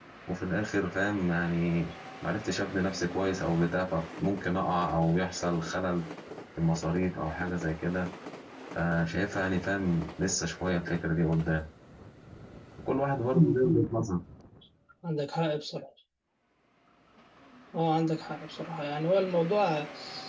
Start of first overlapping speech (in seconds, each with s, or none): none